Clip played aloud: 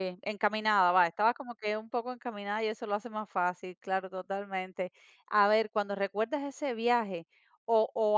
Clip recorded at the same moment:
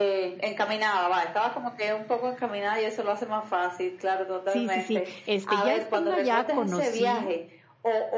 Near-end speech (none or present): present